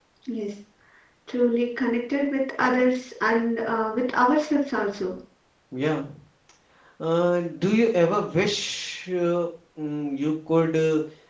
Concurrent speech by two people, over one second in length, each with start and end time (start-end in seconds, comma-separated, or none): none